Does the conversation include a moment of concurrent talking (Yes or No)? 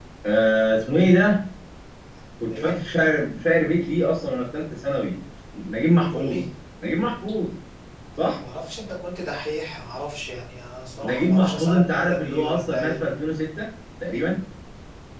Yes